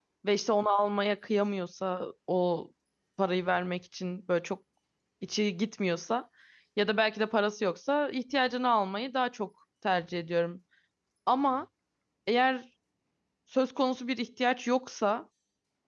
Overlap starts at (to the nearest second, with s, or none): none